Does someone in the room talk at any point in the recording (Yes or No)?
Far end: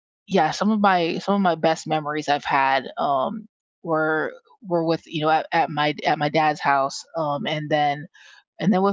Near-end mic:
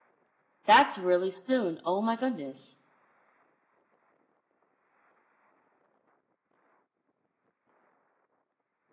Yes